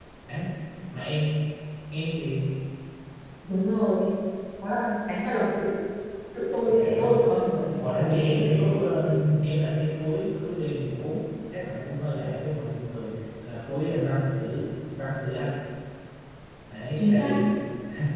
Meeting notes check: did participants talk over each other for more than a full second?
Yes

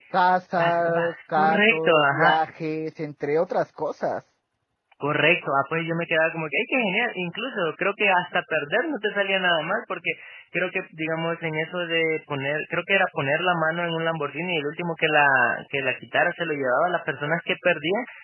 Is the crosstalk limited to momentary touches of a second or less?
No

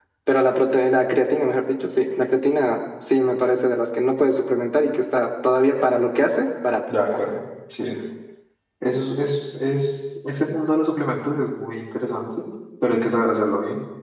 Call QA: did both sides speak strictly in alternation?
Yes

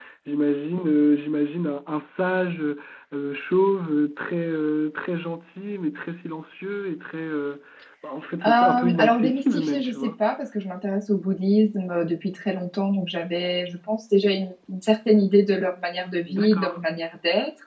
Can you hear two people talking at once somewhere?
Yes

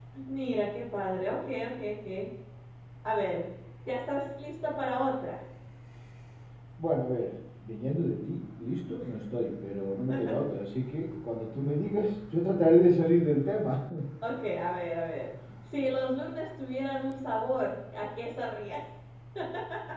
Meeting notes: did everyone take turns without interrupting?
Yes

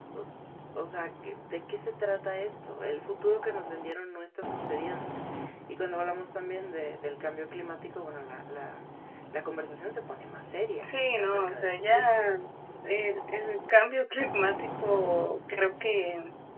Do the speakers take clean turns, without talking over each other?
No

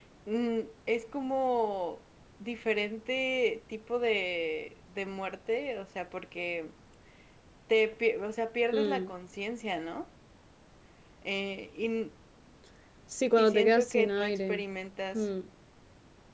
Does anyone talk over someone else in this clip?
Yes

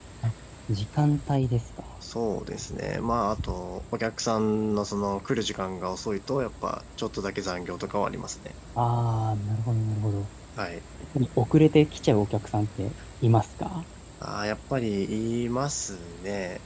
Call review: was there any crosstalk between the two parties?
No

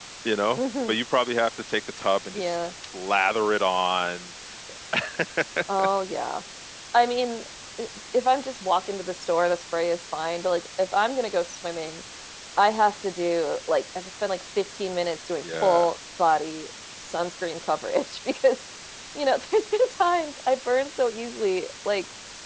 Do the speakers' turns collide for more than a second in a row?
No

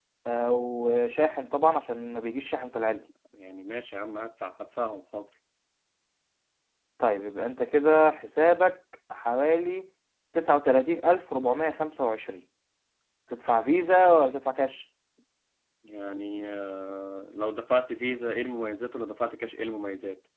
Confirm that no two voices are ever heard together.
Yes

